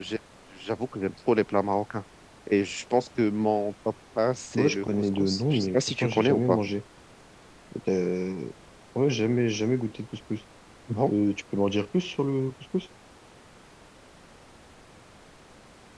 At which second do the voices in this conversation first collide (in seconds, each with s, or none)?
4.5 s